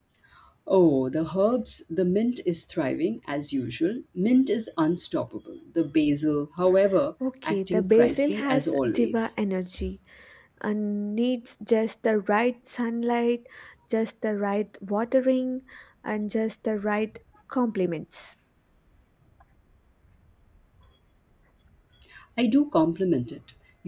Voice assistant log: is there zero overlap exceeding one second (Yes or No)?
No